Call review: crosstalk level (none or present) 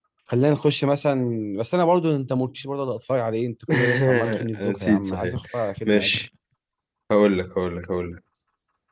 present